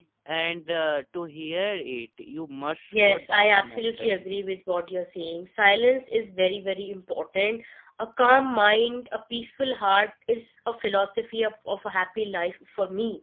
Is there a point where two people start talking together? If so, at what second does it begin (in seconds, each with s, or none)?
2.9 s